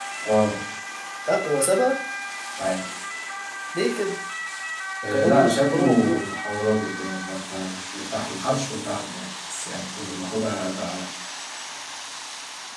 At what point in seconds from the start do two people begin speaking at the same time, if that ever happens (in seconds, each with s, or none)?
5.0 s